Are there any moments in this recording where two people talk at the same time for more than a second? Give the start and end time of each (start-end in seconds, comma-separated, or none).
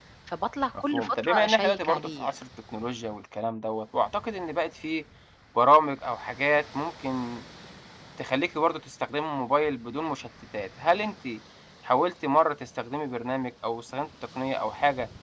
0.9-2.3